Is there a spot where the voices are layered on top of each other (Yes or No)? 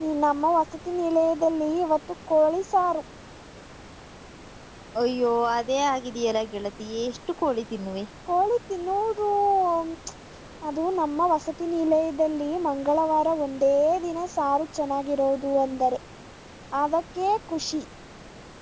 No